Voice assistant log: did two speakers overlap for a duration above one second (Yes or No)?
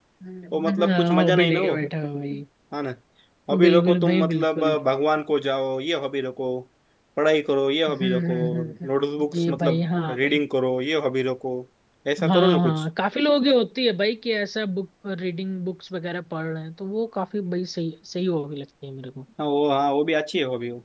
Yes